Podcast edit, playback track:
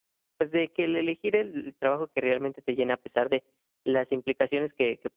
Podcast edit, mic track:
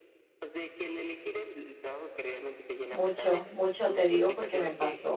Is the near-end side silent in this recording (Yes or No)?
No